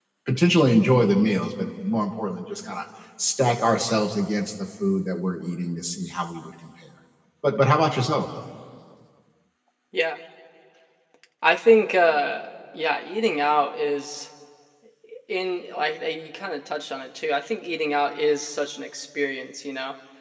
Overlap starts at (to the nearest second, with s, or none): none